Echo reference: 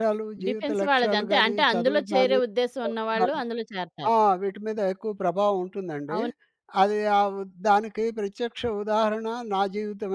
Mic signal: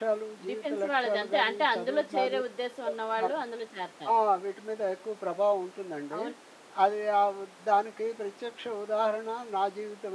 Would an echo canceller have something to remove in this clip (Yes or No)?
Yes